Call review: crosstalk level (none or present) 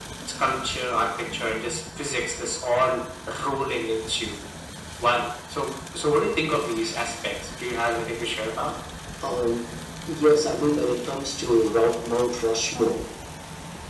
none